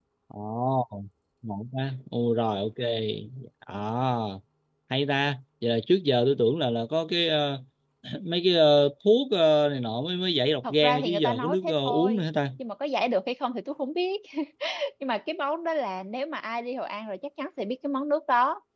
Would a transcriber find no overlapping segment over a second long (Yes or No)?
No